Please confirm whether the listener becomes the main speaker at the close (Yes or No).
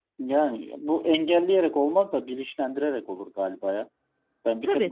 No